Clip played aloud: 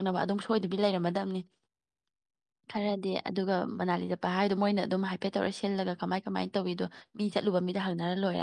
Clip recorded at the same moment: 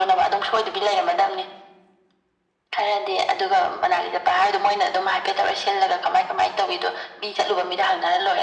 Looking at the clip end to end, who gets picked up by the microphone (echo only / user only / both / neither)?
echo only